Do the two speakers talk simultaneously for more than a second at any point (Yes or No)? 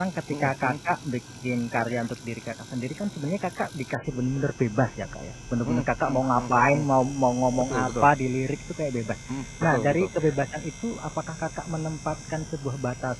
Yes